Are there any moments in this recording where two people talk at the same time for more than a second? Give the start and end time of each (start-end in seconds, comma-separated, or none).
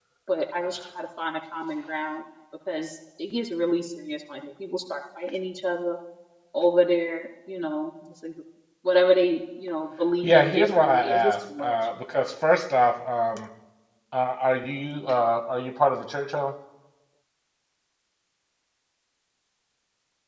10.2-11.7